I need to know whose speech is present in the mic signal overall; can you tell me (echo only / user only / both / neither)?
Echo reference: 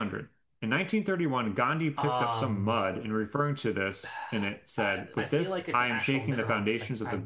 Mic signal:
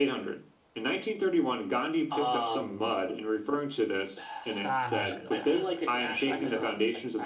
both